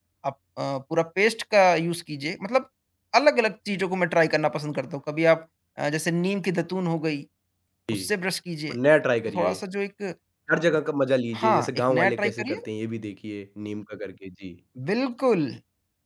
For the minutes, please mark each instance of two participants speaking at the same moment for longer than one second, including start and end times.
11.3-12.6

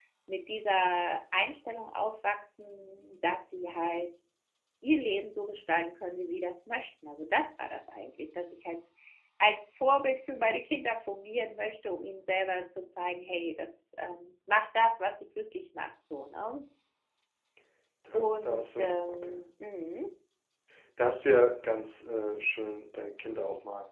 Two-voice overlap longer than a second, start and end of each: 18.1-19.3

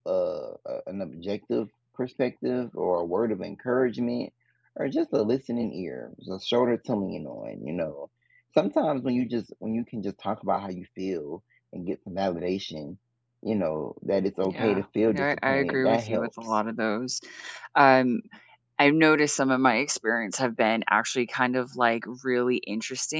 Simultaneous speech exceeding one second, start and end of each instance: 14.4-16.5

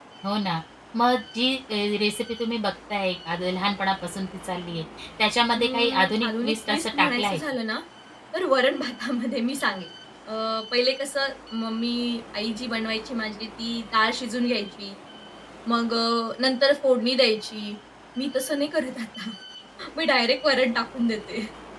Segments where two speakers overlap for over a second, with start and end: 5.5-7.4

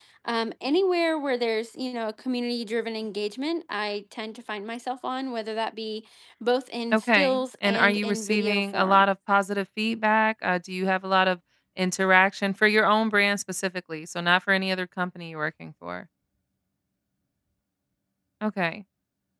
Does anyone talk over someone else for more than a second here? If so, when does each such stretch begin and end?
6.9-9.1

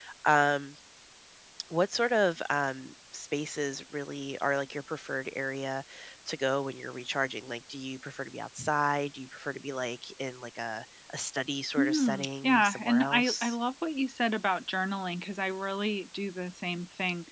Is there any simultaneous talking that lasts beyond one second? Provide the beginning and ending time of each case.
11.8-13.5

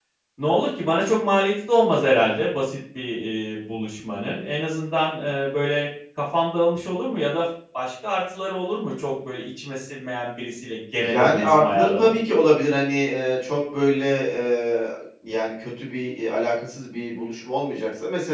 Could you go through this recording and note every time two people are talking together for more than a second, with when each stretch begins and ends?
11.0-12.3

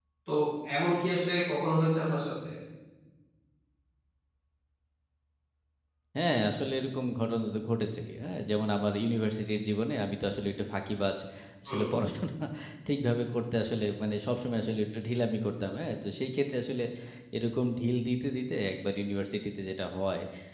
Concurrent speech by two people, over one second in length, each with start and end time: none

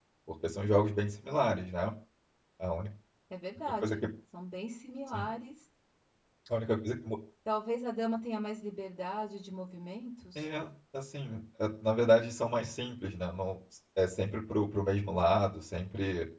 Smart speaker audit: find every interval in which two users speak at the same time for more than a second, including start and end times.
none

